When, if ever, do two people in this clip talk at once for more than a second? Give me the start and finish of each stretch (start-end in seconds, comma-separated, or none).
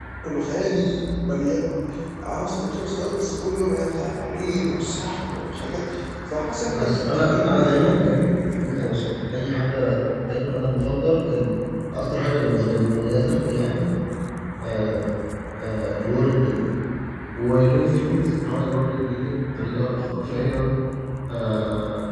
6.7-8.3